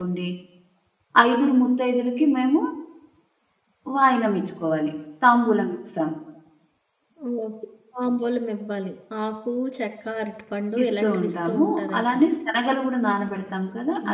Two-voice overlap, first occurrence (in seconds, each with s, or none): 10.8 s